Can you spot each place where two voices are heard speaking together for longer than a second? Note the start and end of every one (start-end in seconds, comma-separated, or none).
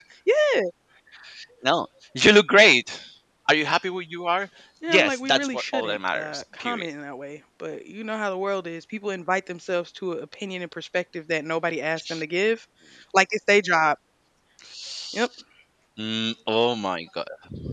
4.9-6.9